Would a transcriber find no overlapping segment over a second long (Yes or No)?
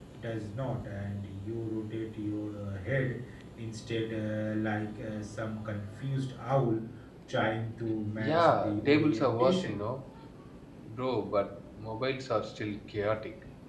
No